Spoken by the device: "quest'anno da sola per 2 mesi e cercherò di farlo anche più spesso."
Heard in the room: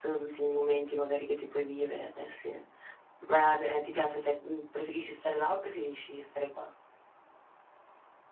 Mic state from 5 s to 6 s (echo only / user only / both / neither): user only